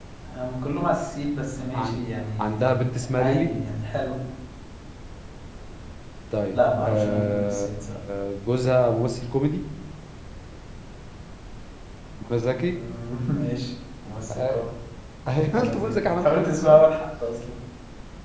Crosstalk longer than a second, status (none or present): present